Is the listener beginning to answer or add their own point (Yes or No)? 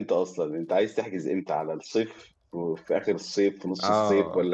Yes